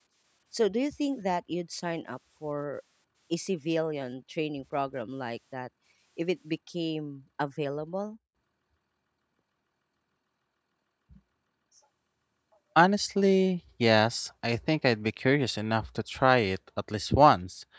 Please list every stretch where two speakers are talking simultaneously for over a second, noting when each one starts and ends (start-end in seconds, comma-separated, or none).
none